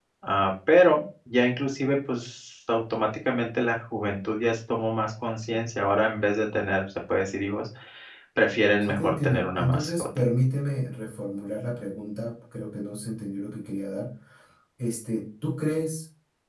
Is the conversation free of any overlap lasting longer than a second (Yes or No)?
No